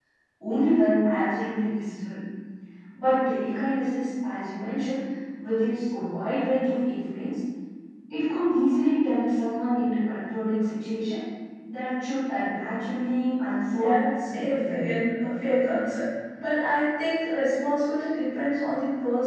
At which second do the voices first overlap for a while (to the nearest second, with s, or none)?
14 s